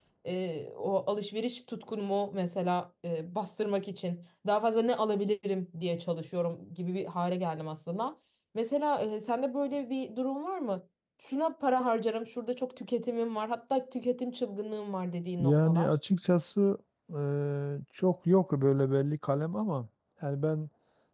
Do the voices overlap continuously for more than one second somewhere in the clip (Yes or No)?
No